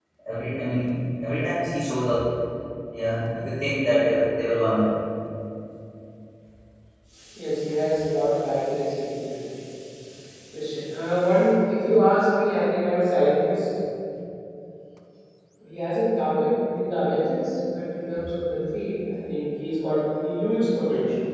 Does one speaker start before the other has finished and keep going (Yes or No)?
No